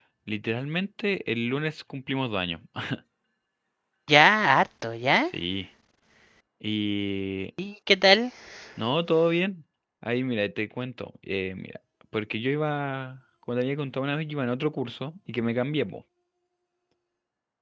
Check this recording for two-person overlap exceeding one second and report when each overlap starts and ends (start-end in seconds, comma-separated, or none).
none